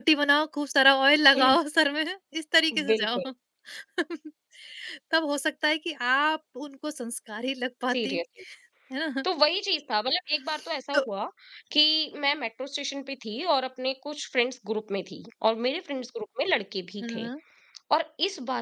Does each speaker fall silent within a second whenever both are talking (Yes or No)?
Yes